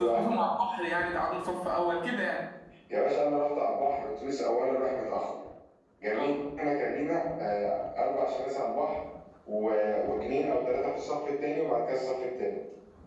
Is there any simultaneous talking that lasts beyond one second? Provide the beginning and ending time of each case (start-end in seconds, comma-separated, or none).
none